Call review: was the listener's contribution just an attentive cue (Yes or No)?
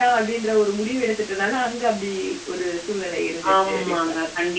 No